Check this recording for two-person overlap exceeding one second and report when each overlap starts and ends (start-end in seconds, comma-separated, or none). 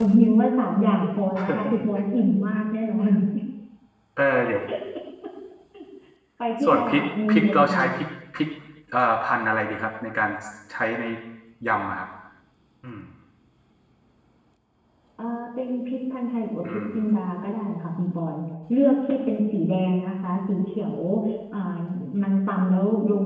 6.6-7.8